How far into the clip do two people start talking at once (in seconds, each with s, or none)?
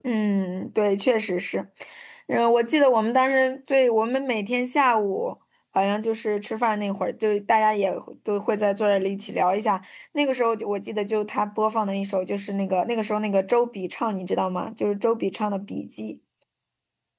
none